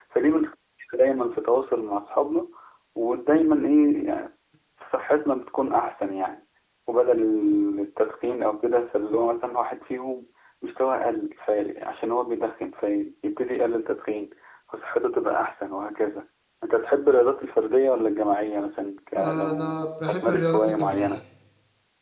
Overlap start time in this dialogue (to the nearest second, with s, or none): 19 s